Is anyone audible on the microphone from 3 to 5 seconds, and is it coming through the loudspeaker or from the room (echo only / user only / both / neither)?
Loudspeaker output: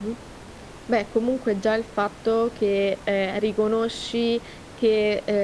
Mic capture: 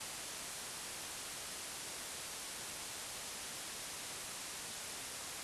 neither